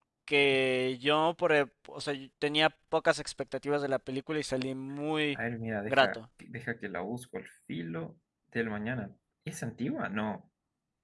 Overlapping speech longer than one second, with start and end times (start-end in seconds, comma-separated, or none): none